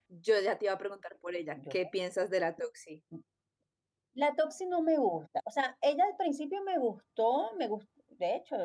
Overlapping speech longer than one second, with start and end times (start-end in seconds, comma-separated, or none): none